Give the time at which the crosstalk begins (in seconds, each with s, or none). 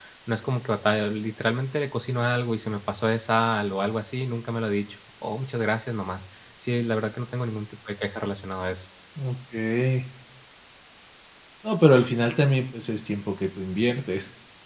none